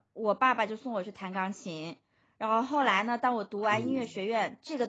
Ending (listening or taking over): listening